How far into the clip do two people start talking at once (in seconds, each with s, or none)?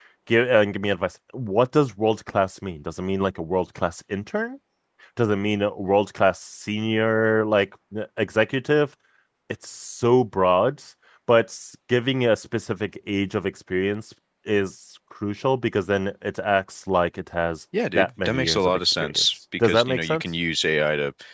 17.7 s